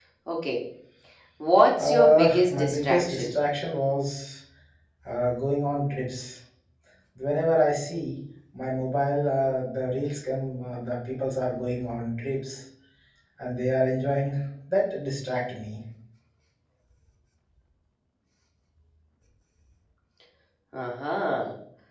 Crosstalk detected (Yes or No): Yes